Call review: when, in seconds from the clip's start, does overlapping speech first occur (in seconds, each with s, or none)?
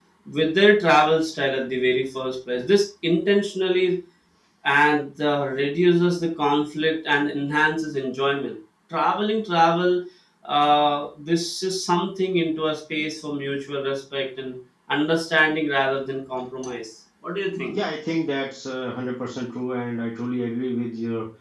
none